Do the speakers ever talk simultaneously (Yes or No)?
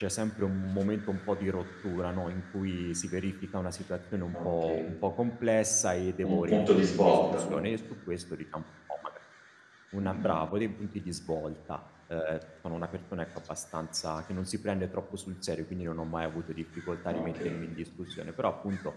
Yes